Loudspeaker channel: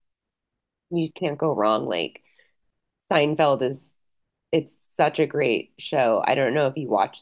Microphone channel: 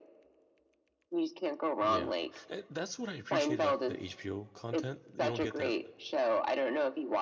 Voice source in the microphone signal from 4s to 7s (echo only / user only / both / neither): both